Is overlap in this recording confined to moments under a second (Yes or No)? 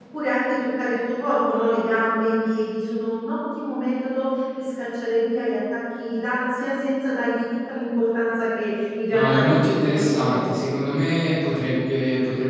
No